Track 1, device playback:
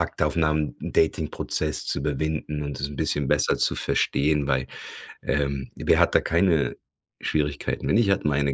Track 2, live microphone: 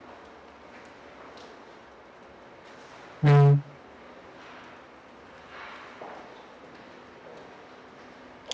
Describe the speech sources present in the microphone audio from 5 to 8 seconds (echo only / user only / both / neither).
neither